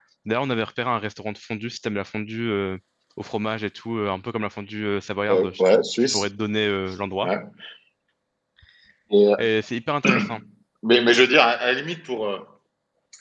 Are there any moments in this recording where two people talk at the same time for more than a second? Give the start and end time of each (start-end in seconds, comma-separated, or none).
none